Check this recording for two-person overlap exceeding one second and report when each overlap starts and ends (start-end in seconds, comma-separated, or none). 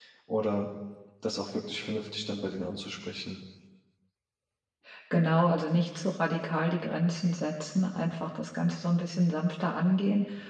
none